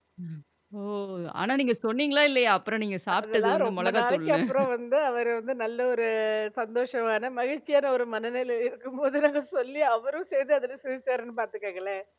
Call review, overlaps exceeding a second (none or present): present